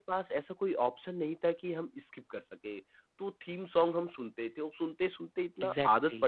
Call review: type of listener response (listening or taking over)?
listening